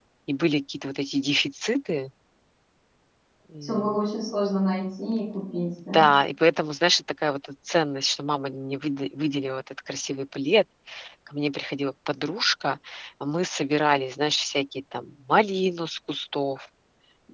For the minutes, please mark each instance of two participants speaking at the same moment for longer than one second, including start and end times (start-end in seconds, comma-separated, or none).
none